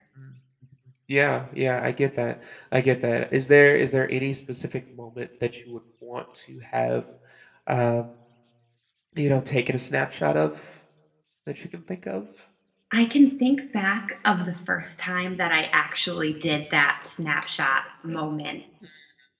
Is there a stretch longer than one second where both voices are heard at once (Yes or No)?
No